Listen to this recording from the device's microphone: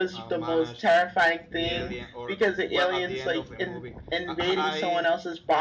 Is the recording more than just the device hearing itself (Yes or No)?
Yes